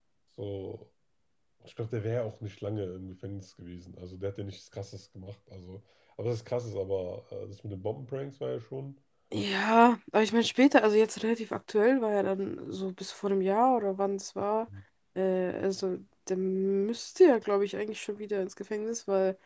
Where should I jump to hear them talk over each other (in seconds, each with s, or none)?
none